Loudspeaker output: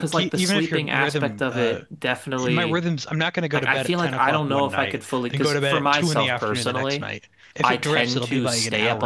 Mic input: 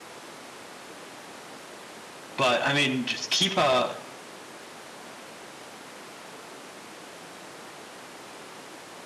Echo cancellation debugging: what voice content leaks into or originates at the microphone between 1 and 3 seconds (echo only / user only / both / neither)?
user only